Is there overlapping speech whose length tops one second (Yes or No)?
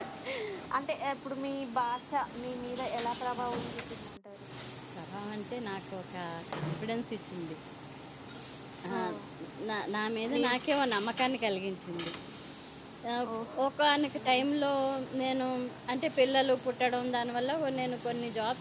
No